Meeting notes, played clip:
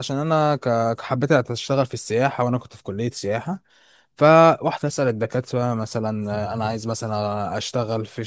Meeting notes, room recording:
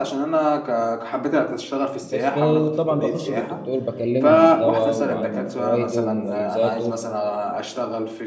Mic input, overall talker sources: both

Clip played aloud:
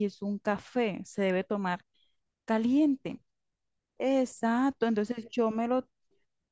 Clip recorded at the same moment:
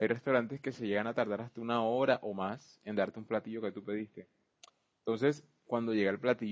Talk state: user only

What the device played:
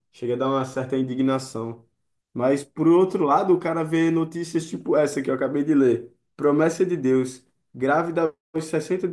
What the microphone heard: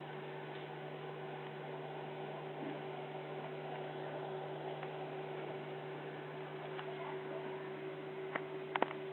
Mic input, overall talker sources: neither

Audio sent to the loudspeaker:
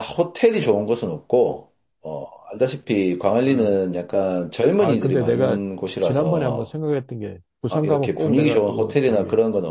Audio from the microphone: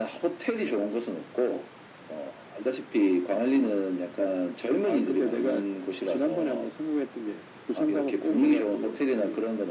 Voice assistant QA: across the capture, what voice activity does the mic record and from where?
echo only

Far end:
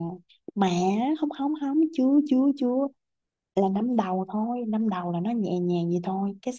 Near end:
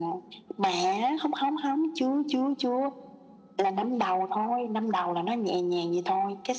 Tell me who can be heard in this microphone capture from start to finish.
echo only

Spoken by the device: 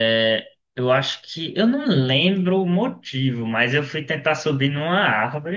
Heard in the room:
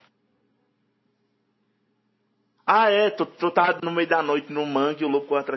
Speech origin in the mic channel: user only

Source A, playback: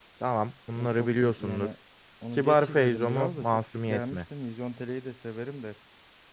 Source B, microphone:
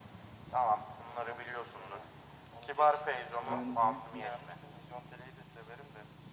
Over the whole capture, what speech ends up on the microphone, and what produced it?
both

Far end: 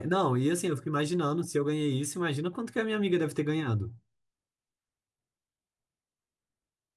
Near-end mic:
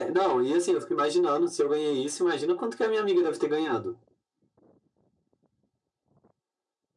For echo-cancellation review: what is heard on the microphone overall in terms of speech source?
echo only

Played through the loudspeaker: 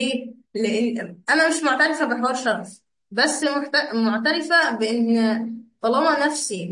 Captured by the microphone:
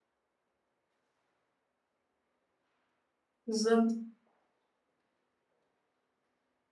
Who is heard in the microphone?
user only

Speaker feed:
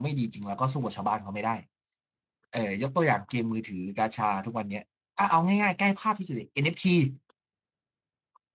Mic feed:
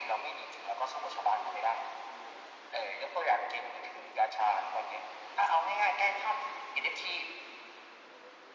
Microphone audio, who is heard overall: echo only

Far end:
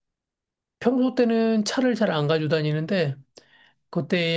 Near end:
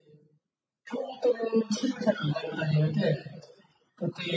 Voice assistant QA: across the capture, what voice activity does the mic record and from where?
echo only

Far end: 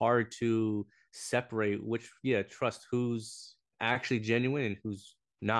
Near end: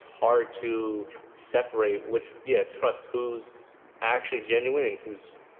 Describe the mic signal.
echo only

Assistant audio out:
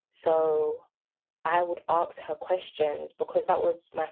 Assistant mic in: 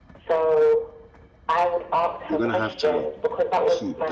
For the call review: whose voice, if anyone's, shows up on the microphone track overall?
both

